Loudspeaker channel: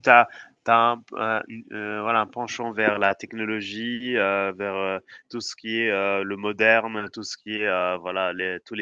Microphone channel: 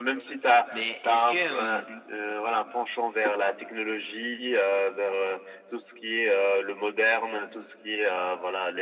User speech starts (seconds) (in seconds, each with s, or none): 0.7 s